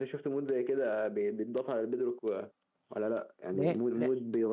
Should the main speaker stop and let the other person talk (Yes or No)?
No